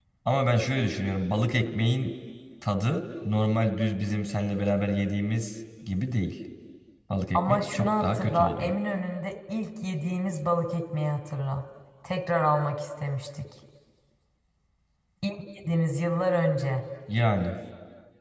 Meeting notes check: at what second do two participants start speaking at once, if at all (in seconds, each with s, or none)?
7.3 s